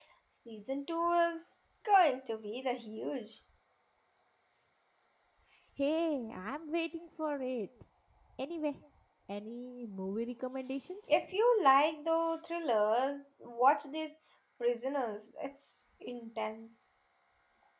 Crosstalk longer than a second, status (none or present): none